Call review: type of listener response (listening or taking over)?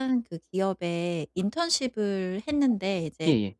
listening